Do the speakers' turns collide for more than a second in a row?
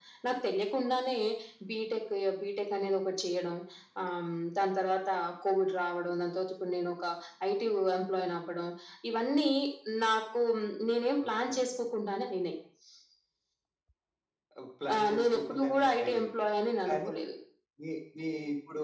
Yes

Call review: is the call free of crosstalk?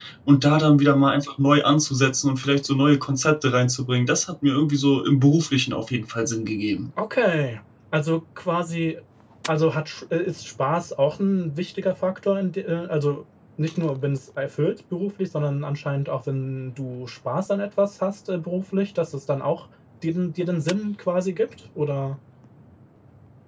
Yes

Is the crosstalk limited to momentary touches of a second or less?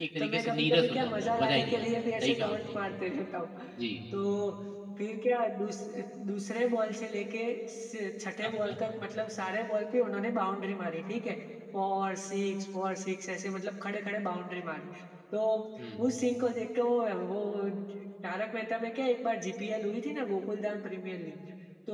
No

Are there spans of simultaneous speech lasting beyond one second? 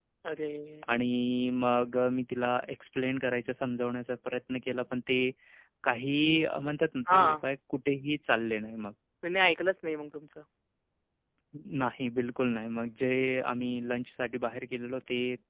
No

